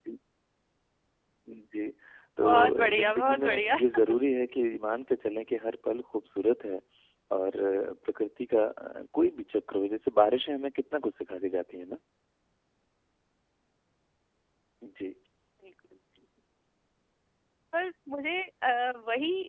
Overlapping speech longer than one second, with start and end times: 2.4-3.8

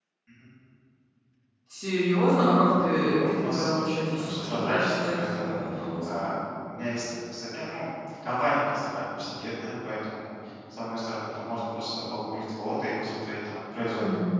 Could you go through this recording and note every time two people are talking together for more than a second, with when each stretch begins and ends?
3.1-5.6

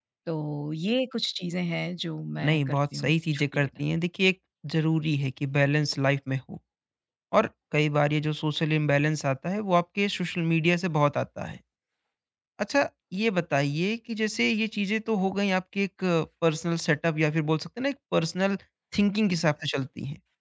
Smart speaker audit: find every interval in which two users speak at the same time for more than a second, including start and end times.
2.4-3.7

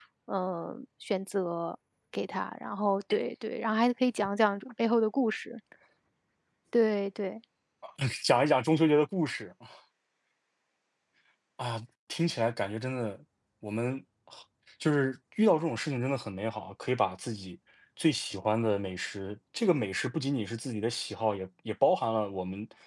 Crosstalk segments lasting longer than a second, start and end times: none

